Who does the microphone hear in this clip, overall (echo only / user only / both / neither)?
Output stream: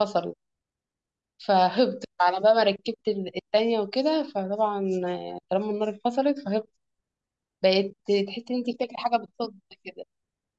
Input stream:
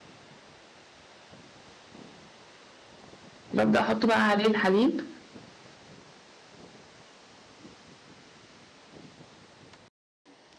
user only